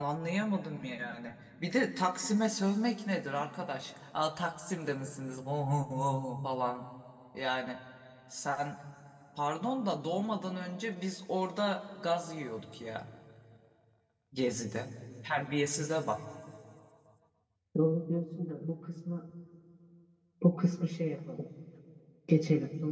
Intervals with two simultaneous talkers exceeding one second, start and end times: none

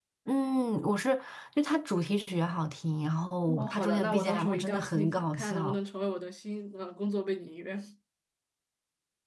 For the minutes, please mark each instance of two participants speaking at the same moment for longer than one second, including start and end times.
3.5-5.8

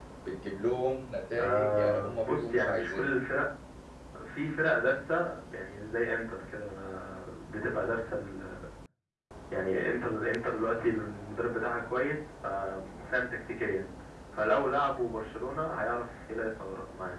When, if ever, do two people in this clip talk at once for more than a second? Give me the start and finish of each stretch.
1.4-3.2

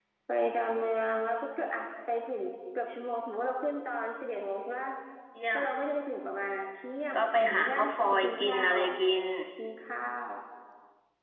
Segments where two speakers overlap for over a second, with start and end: 7.2-8.8

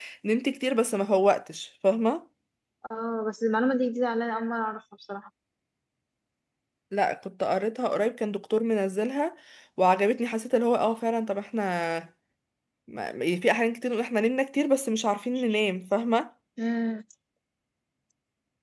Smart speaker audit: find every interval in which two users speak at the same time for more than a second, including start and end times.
none

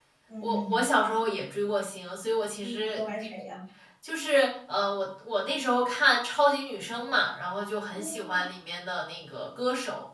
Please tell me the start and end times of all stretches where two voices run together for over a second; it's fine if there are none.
none

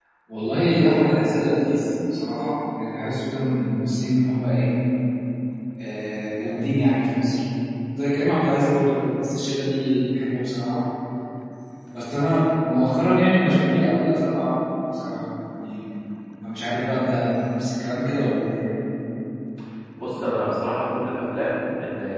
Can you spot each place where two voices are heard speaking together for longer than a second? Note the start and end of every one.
none

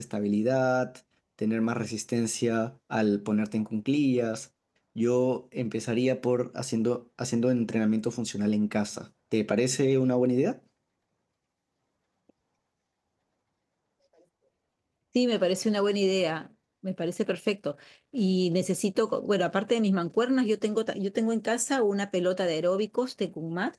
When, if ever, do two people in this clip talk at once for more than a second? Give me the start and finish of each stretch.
none

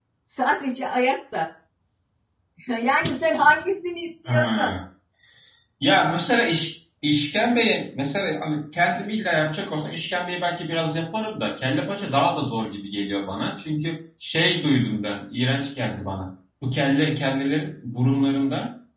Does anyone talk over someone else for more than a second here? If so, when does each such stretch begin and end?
none

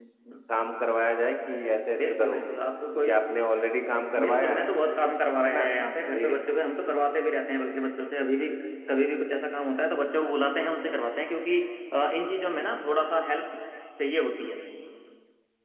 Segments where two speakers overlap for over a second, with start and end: none

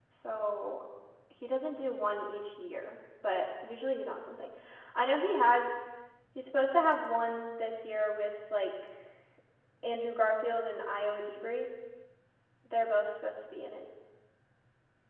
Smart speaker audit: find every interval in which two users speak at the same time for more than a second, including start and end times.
none

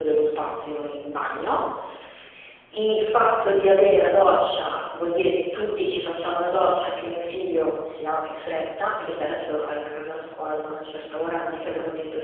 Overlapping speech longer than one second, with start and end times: none

